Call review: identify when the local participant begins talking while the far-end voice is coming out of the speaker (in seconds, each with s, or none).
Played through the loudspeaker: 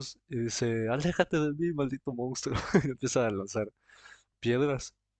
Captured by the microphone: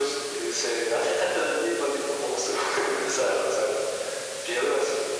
none